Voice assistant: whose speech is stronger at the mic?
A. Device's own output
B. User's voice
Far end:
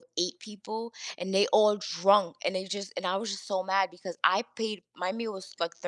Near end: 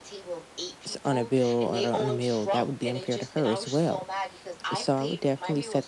B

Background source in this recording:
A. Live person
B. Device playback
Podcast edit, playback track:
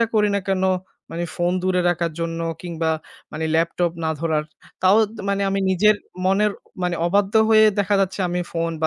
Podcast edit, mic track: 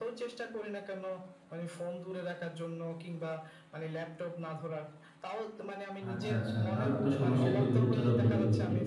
B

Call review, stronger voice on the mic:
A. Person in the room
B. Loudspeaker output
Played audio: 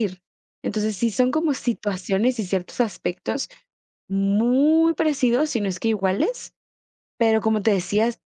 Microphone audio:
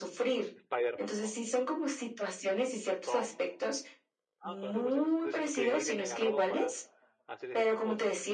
B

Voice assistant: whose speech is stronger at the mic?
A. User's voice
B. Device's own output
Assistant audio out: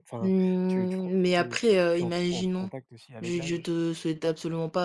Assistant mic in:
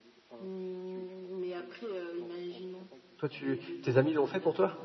A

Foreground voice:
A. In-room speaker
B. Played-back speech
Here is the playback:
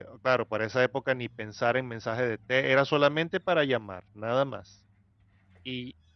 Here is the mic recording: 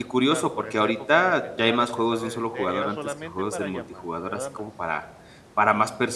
A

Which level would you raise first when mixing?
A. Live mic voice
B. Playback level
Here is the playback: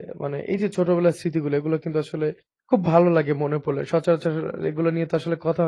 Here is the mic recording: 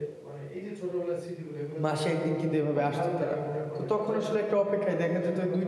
B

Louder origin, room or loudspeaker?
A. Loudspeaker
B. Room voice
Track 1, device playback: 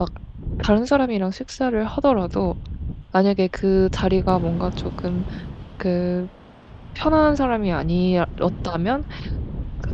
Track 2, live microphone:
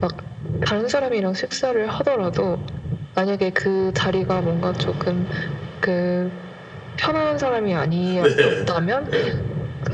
B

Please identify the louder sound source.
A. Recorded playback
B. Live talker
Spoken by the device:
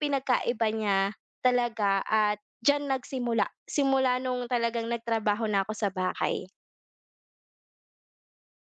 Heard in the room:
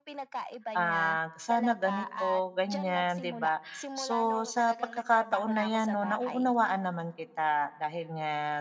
B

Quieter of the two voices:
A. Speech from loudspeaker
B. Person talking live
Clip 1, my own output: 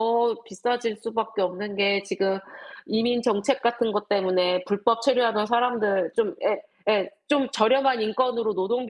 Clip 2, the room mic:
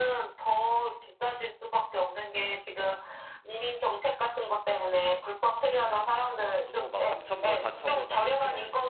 B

